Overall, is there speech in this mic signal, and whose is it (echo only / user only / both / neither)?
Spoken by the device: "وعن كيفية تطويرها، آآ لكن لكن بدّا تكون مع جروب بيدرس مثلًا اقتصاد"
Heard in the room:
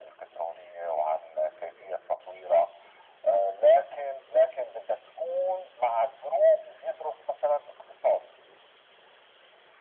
echo only